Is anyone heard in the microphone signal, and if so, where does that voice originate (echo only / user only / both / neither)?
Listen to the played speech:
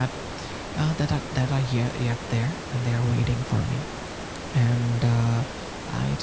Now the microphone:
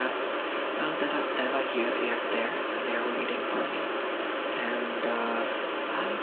echo only